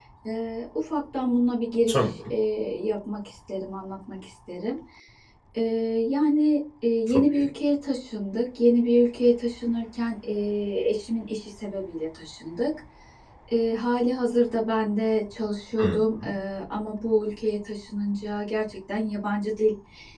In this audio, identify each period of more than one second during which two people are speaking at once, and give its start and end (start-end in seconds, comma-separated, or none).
none